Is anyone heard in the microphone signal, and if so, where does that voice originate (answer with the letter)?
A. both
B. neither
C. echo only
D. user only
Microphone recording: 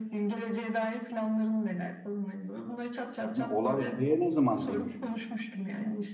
A